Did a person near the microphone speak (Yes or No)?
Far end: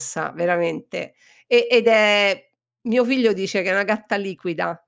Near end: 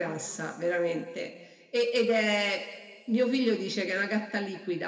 No